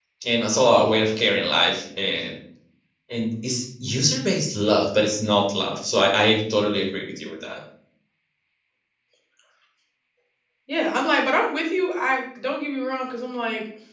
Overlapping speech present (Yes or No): No